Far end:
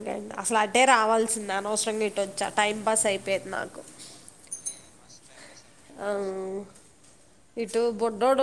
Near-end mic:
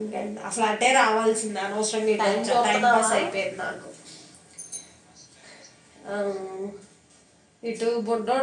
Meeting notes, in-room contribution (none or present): present